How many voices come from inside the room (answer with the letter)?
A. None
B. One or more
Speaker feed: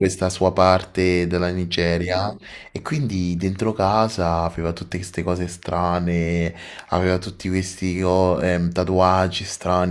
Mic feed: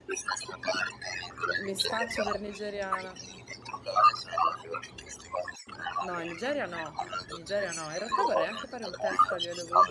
B